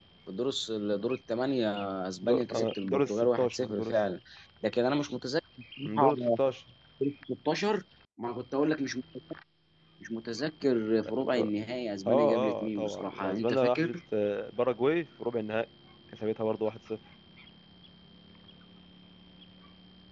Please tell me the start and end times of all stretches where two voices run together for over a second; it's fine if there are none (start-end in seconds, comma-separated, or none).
2.2-3.9, 12.1-14.0